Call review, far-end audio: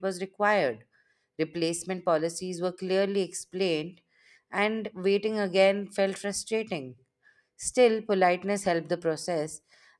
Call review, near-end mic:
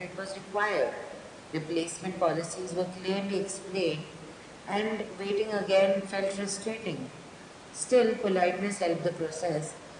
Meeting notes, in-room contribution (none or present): none